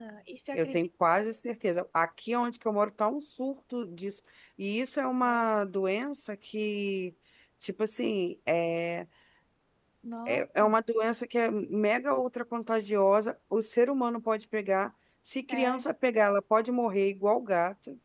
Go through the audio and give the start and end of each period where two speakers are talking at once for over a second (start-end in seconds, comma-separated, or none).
none